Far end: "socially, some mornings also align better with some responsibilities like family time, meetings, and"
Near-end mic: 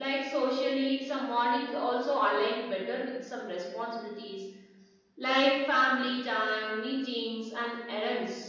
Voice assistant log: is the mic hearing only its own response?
Yes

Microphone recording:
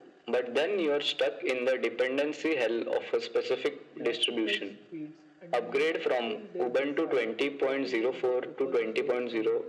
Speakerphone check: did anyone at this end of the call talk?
Yes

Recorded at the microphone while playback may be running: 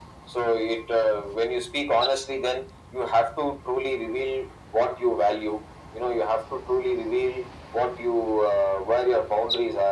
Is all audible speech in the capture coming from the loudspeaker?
Yes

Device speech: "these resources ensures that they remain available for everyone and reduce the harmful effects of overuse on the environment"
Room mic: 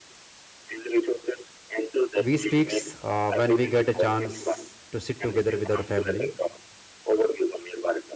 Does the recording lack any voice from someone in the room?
No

